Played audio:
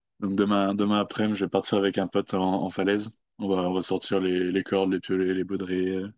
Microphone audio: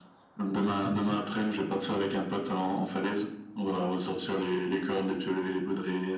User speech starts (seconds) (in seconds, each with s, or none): 0.5 s